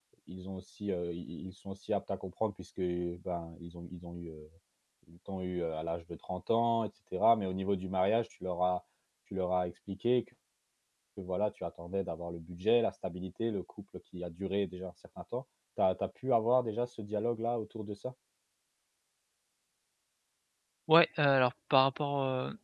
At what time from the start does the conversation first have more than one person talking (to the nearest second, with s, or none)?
none